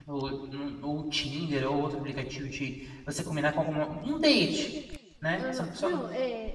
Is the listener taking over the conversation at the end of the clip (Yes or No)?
Yes